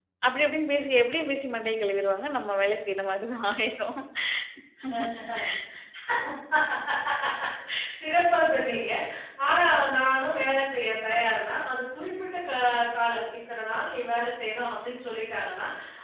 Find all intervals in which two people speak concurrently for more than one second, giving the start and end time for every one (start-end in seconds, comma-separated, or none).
none